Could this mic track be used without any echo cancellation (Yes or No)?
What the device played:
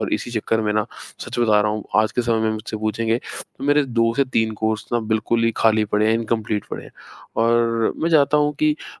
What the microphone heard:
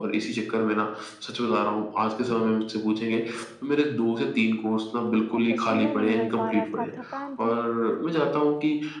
No